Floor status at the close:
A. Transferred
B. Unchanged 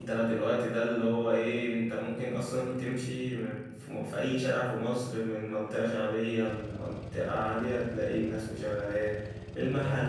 B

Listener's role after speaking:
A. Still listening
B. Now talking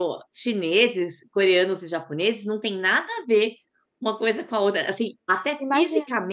A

